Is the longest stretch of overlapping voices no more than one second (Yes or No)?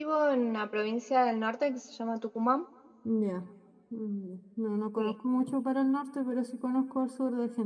Yes